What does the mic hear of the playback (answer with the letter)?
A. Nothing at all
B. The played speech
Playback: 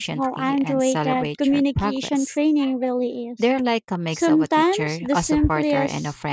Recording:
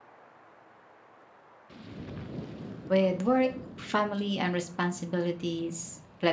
A